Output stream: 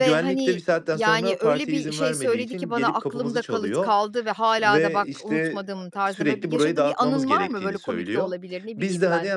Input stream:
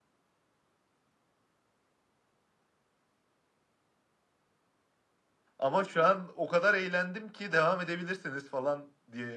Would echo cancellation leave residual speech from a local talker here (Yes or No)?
Yes